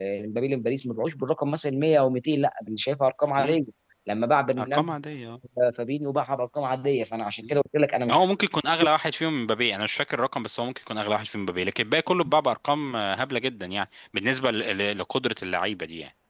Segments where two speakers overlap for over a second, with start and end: none

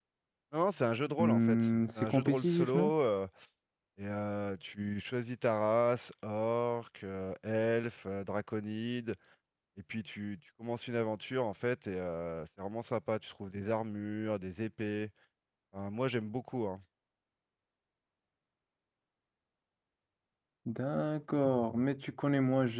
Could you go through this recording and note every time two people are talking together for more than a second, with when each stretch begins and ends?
1.2-2.9

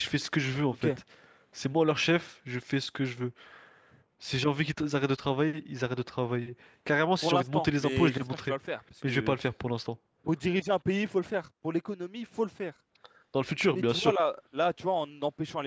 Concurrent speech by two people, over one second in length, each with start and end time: 7.2-8.5

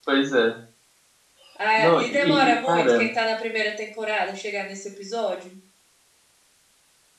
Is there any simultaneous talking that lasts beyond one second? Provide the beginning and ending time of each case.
1.8-3.0

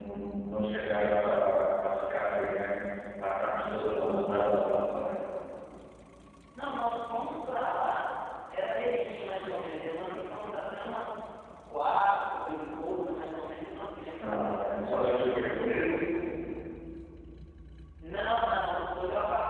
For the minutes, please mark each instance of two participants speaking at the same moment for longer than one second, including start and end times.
none

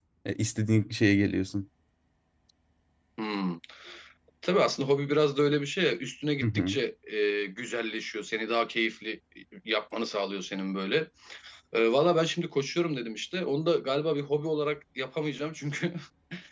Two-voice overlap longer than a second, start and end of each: none

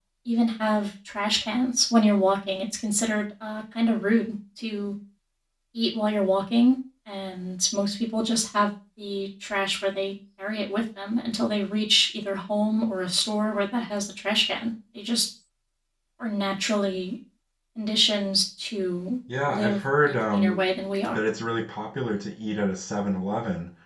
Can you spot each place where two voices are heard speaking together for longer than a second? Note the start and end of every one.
19.4-20.7

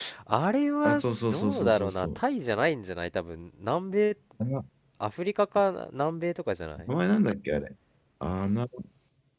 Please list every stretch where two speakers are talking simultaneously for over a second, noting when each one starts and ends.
0.8-2.2

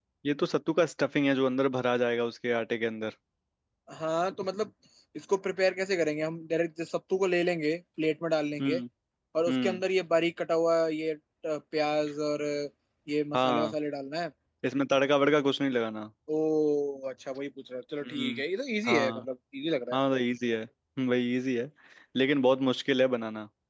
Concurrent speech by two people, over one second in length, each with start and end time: none

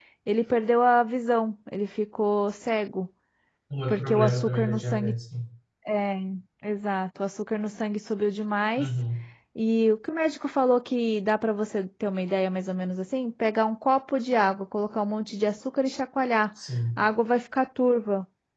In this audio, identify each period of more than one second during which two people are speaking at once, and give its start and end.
3.9-5.1

